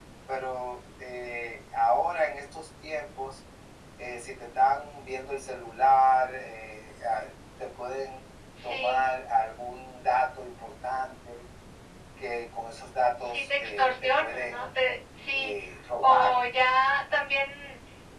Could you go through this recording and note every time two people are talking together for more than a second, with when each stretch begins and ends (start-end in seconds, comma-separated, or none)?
13.3-14.7